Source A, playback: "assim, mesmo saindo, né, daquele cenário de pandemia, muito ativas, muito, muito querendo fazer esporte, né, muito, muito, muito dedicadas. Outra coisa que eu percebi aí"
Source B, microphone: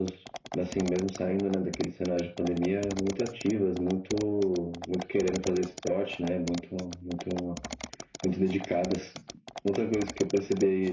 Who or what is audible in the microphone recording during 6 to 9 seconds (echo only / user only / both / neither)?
echo only